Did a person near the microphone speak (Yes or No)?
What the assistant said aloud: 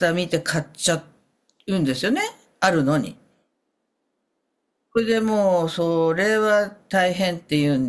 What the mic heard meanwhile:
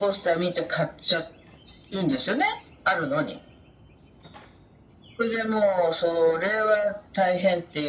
No